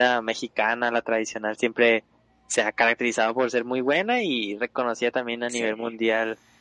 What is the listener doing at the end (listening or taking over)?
listening